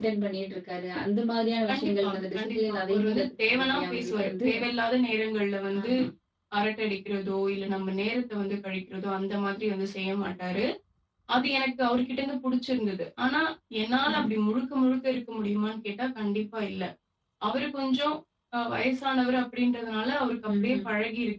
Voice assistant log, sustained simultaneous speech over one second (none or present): present